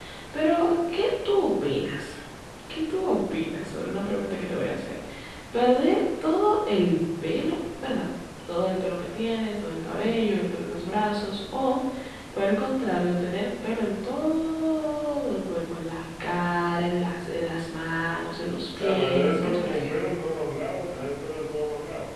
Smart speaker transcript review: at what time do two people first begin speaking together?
19 s

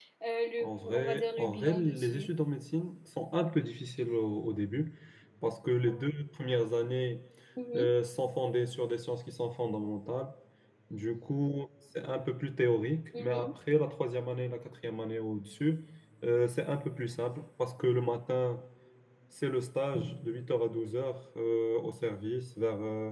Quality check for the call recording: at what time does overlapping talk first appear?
1 s

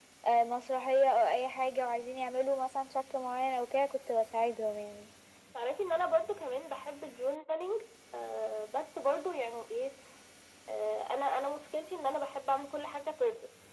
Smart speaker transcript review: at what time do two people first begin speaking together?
none

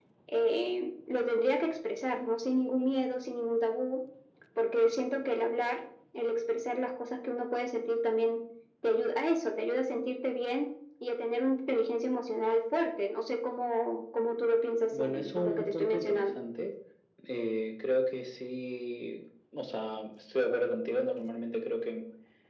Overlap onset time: 15 s

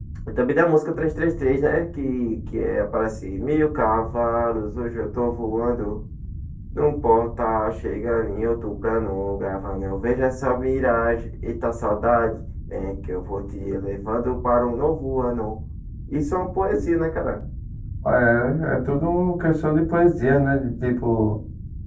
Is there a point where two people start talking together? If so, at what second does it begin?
none

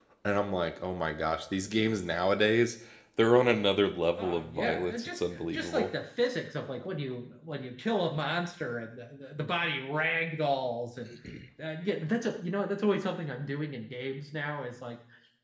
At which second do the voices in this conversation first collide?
4 s

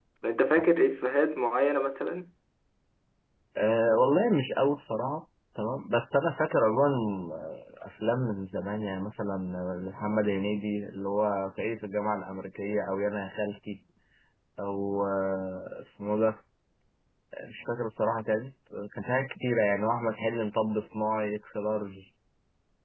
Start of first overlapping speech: none

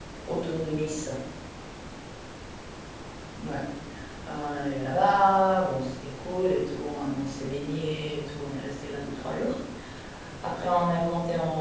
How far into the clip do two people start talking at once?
none

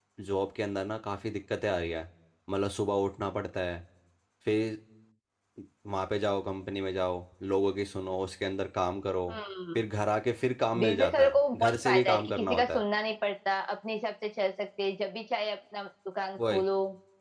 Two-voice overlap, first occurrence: 11 s

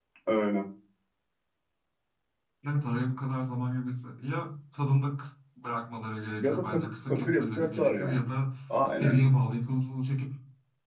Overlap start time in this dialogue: 6 s

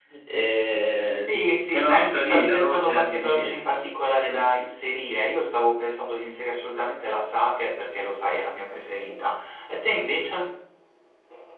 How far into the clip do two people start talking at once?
1 s

